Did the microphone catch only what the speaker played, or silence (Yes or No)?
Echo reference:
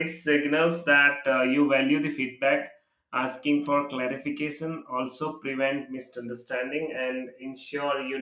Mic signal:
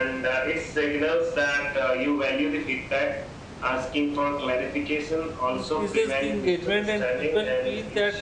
No